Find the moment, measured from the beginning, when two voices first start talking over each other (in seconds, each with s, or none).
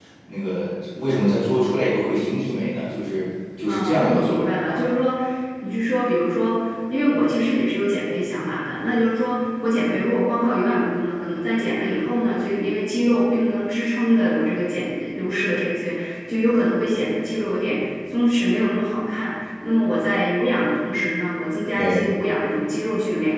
3.7 s